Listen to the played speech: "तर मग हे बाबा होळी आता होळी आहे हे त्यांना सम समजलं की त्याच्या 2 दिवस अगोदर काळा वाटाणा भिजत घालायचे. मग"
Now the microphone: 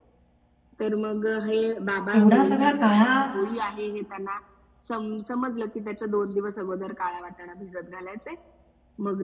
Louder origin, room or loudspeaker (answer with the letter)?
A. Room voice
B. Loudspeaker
A